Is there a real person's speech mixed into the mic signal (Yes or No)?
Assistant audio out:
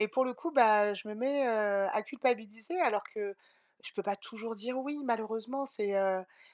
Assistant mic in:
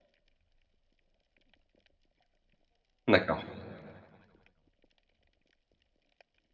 Yes